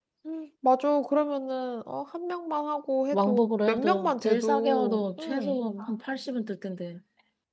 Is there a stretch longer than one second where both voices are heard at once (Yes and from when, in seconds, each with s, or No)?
Yes, from 3.1 s